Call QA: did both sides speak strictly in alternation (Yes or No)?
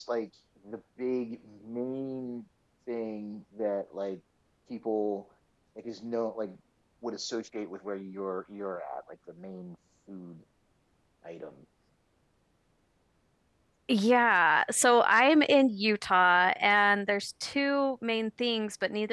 Yes